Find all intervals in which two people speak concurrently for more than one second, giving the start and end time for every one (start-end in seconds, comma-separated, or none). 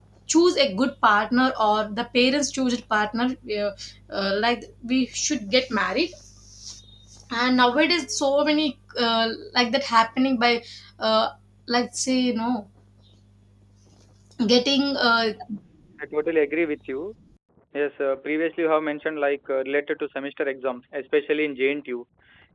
none